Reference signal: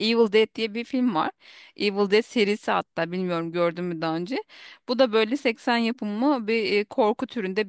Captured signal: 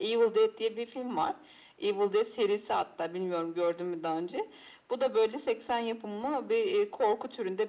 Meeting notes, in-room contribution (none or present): none